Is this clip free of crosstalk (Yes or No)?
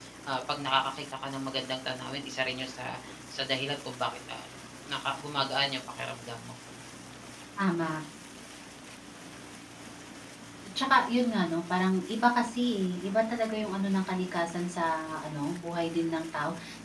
Yes